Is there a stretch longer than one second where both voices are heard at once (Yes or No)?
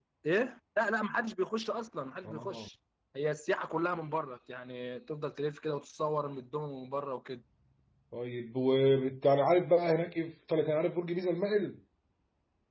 No